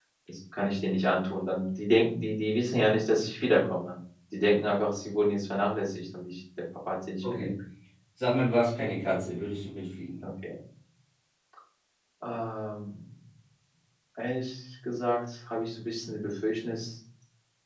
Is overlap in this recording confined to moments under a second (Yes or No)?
Yes